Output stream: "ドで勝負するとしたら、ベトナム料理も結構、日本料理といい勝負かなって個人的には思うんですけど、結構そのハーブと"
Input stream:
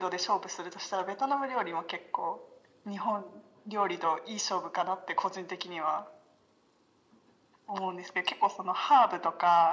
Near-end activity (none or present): none